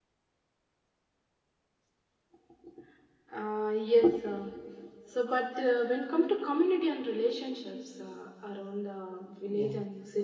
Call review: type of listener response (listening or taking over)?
listening